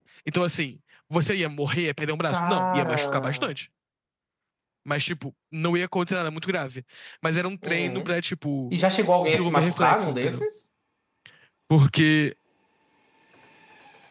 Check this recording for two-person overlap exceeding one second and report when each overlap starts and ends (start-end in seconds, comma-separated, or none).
2.3-3.5, 9.2-10.4